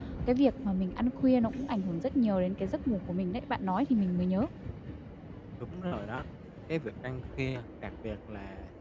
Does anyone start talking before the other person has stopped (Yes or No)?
No